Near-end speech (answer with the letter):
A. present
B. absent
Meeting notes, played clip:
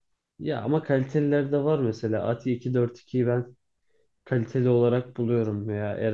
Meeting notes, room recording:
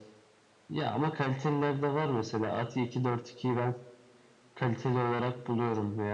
B